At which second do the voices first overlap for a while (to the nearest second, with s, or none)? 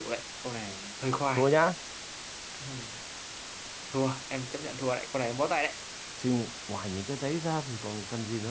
none